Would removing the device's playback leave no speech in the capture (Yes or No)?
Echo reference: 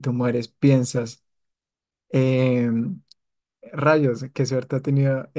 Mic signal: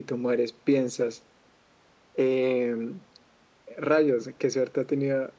Yes